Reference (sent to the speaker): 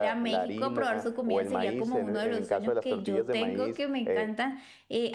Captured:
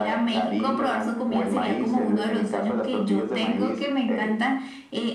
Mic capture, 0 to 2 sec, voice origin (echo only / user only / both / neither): echo only